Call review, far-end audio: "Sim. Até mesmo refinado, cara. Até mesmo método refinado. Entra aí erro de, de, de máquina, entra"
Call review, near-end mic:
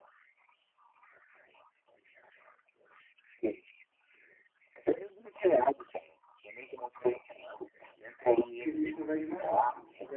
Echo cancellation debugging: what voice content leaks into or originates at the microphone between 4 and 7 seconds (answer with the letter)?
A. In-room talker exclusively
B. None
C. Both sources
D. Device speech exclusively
D